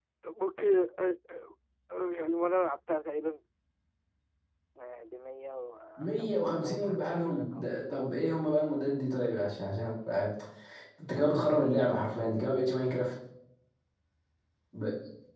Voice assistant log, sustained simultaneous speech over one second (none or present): present